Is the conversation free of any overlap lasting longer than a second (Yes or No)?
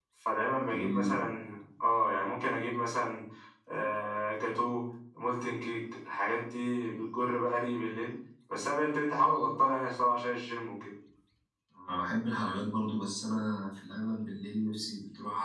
Yes